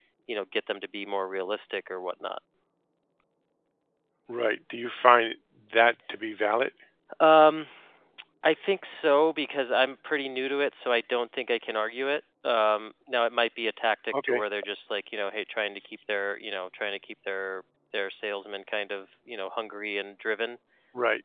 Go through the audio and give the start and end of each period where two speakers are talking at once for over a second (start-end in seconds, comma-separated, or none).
none